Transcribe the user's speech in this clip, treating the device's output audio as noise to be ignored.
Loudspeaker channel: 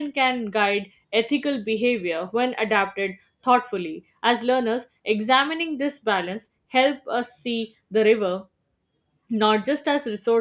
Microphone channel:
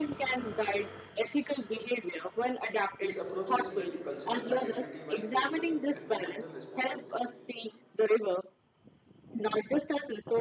This approach respect cultural identity while fostering environmental responsibility.

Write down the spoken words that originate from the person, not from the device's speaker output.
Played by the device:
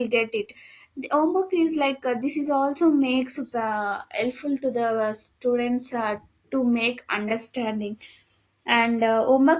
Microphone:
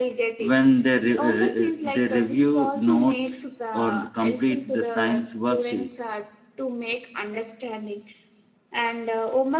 when they, re- re- they review notes or complete the science worksheet

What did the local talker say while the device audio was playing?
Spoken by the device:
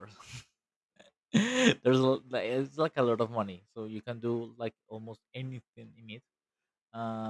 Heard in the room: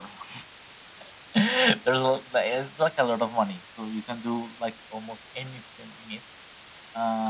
none

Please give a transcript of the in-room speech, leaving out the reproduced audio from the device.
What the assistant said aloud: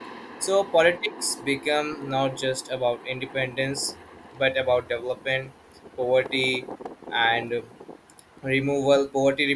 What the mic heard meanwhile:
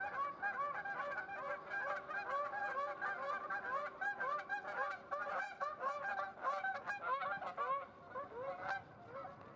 none

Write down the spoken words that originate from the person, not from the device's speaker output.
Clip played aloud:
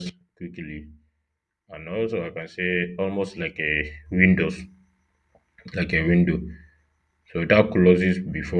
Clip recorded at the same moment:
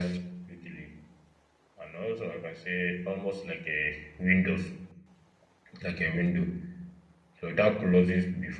none

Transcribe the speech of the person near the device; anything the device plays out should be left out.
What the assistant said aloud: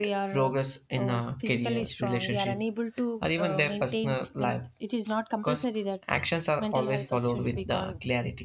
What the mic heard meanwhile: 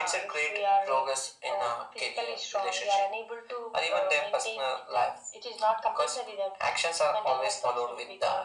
none

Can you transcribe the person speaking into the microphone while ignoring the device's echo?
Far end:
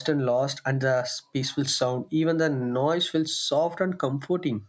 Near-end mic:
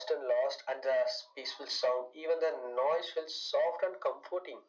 none

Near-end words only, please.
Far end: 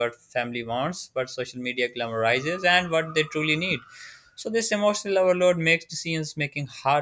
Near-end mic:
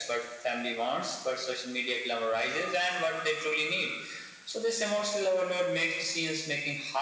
none

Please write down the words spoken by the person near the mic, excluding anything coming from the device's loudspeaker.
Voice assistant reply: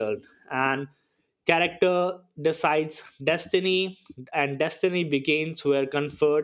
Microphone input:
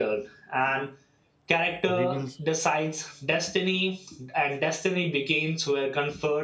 reveals

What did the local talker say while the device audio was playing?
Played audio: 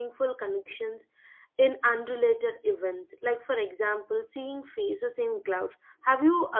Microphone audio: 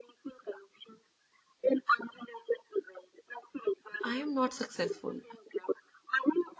I am not successful.

